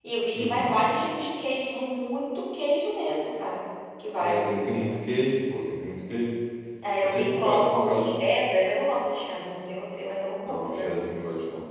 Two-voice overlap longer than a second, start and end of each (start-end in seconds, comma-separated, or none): 7.0-8.2